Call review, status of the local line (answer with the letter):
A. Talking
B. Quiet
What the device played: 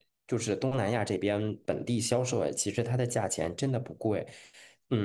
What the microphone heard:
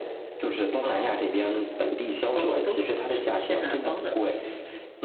A